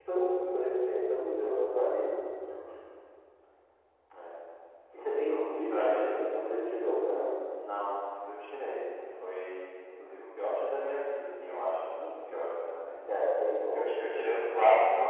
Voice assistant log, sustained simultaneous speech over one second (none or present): present